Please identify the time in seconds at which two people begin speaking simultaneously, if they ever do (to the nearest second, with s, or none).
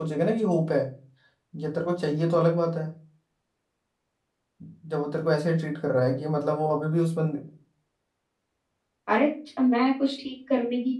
none